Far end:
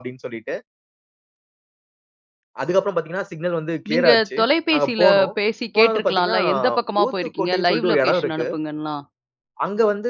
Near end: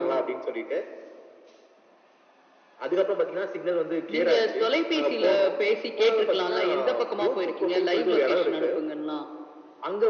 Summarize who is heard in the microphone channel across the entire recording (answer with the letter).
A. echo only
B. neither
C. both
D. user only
A